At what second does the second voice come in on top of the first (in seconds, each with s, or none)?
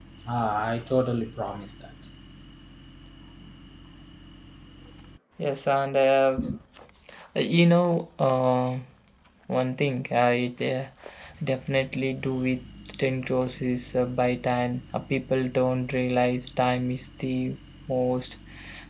none